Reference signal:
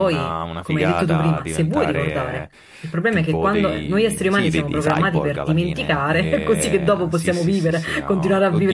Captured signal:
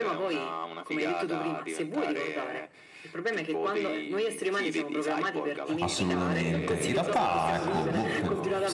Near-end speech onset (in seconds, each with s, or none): 5.8 s